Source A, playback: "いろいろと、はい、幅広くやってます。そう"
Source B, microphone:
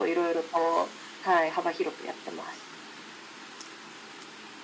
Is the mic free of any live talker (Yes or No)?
Yes